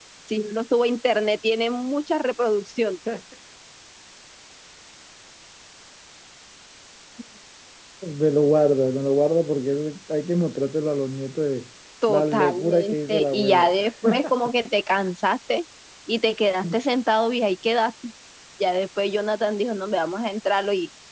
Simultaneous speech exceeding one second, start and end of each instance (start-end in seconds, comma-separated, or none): 12.1-13.7